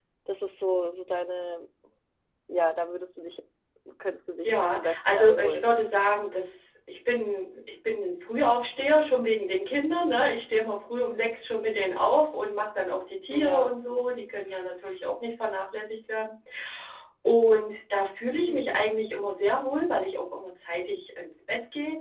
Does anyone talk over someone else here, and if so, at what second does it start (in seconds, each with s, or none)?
4.4 s